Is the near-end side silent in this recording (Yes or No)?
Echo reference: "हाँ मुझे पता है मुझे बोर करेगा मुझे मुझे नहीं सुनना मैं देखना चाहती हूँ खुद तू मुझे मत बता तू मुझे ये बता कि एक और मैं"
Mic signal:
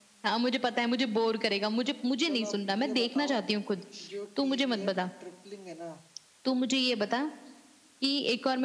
No